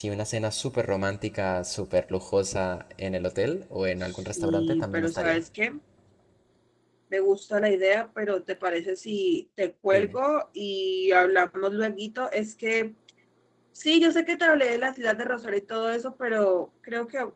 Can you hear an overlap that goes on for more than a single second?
Yes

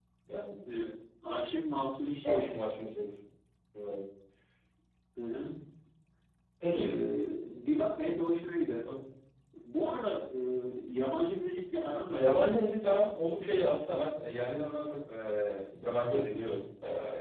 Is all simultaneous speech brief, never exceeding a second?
Yes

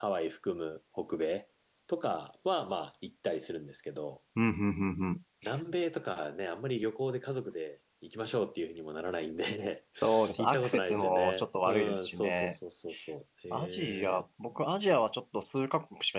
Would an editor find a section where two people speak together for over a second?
Yes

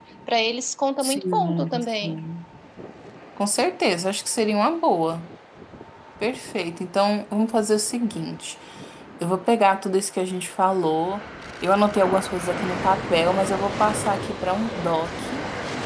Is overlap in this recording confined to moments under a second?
No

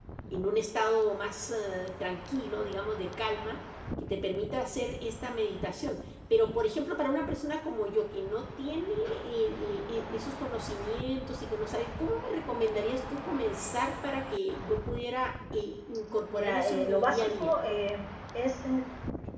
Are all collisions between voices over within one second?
No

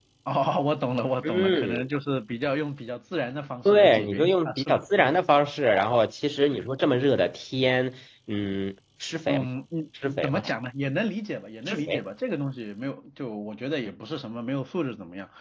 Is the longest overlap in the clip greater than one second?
Yes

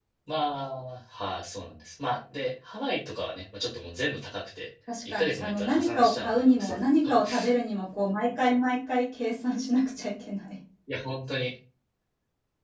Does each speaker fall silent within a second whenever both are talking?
No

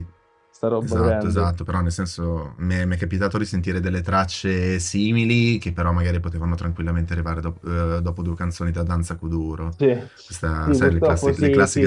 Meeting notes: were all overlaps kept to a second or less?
No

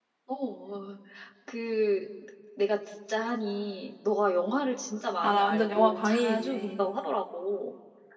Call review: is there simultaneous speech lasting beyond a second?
Yes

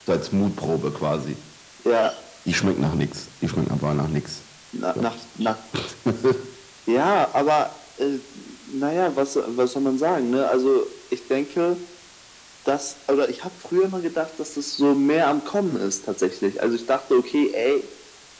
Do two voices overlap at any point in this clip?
No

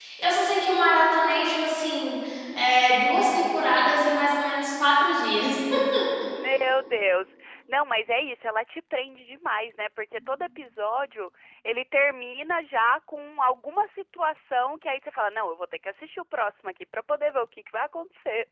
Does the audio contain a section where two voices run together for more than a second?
No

